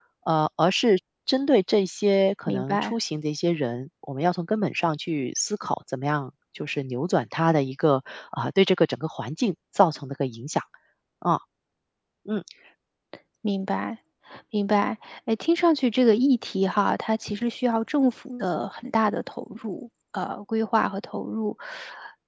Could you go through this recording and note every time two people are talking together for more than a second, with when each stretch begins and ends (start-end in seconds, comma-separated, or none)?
none